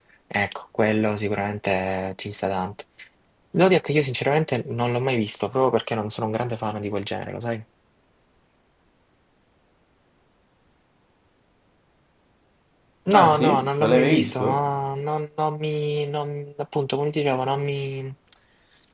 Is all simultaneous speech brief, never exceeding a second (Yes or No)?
No